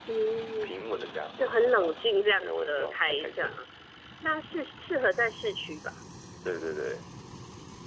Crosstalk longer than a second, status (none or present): present